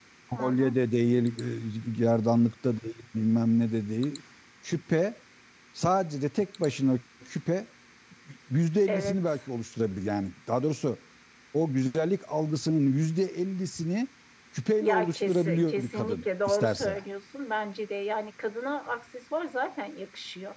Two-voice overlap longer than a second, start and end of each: 14.8-17.0

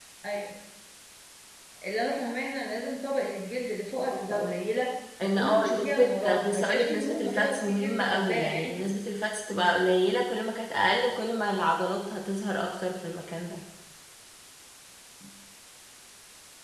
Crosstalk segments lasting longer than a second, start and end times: 5.2-8.8

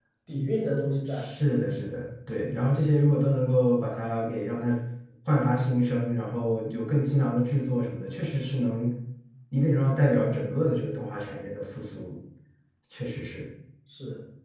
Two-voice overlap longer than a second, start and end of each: none

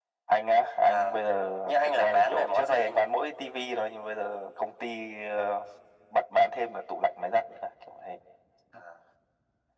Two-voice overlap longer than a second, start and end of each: 1.7-3.0

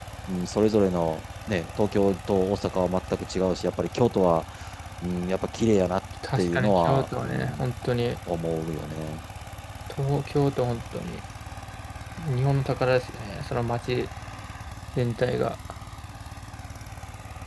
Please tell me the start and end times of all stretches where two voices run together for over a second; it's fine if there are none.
6.4-7.6

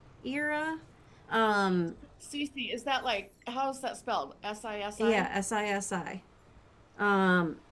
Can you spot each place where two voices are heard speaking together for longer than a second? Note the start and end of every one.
none

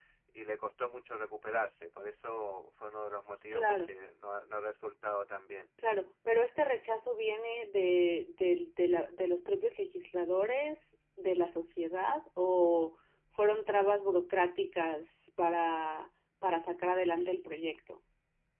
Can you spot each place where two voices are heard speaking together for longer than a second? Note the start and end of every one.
none

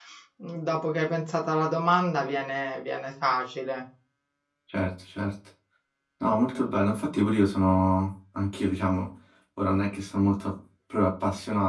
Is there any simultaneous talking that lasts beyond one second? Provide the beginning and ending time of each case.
none

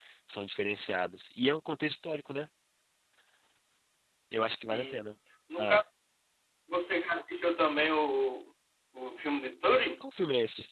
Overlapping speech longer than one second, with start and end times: none

